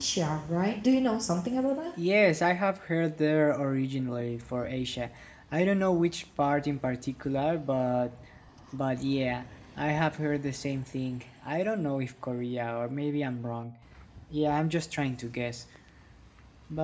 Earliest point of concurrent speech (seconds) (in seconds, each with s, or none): none